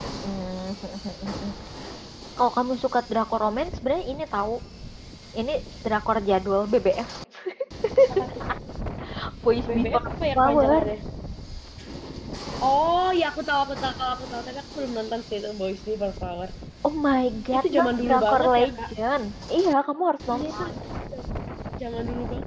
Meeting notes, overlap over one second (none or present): present